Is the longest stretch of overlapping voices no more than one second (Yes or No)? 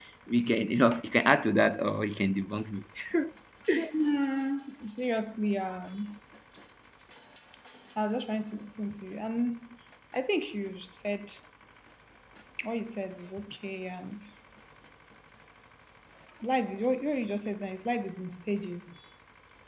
Yes